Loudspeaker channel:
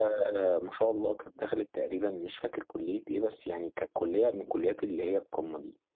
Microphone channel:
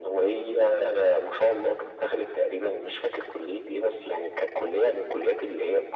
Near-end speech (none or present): none